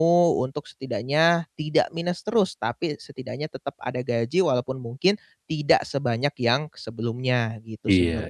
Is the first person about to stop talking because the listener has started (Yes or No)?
Yes